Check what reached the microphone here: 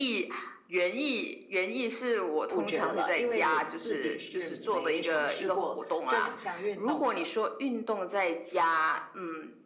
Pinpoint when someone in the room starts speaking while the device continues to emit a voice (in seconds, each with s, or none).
2.5 s